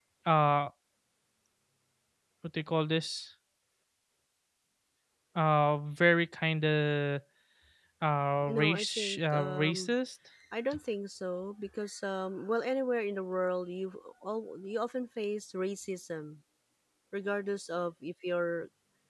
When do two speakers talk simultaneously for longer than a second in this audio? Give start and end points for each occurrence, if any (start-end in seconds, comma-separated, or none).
8.5-9.9